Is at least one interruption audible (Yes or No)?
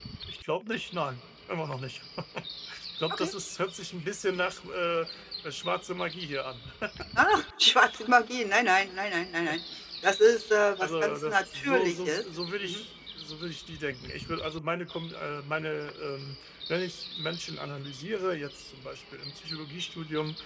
Yes